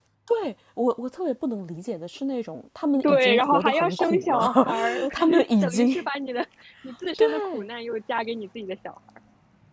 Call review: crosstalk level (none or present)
present